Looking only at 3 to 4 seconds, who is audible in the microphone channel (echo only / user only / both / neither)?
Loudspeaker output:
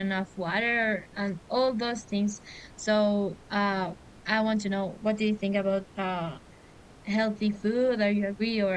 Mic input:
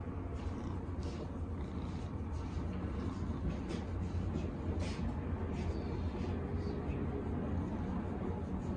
neither